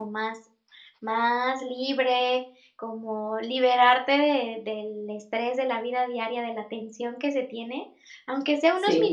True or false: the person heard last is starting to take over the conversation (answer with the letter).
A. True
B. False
B